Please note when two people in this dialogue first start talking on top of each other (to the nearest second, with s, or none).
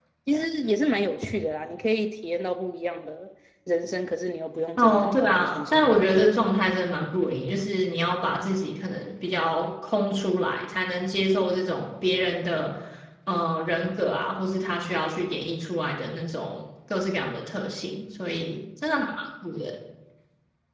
5 s